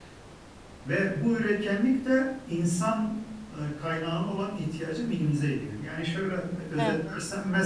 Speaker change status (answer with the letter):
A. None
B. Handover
A